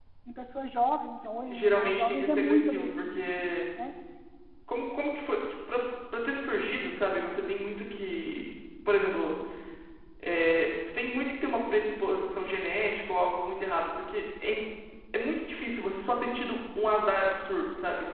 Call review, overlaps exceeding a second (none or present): present